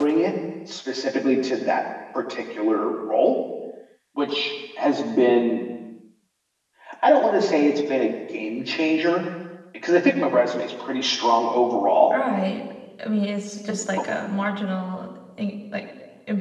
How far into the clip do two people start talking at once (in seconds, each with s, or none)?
none